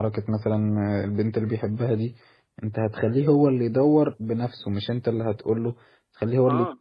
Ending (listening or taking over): listening